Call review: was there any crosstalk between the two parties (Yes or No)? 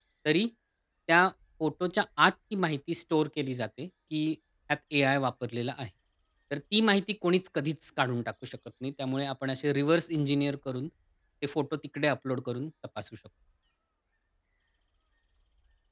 No